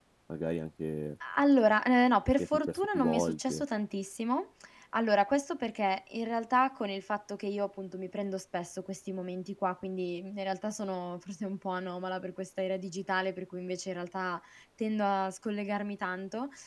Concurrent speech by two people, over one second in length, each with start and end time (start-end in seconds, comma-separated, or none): 2.4-3.6